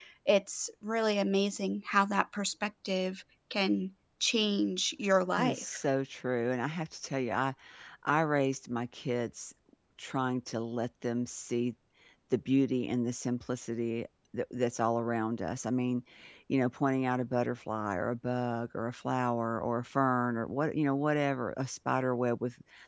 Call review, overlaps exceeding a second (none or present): none